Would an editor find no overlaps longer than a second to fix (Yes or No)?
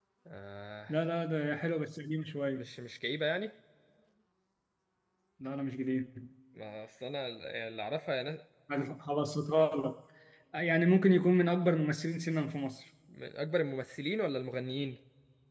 Yes